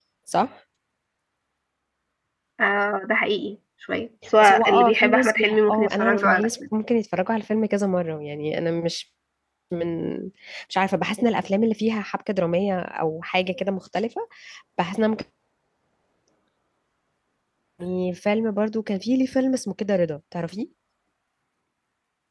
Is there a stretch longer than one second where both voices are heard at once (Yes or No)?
Yes